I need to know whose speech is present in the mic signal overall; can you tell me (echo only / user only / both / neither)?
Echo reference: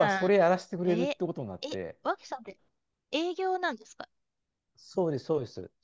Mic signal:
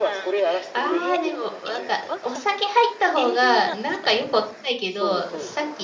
both